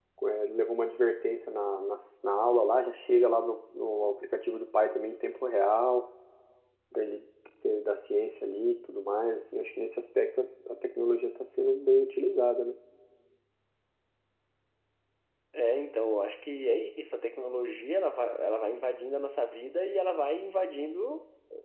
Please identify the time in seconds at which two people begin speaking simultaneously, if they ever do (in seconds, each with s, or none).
none